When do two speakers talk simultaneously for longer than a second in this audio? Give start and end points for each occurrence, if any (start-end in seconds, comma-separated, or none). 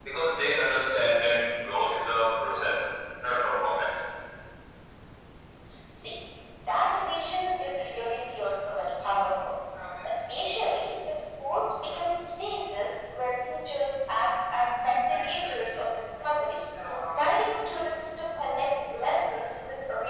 none